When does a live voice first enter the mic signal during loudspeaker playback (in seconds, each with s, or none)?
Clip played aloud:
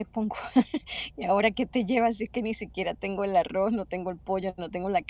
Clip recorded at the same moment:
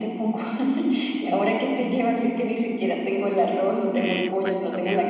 3.9 s